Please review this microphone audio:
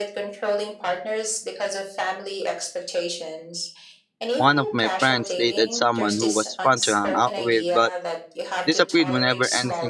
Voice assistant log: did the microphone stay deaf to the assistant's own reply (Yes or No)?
No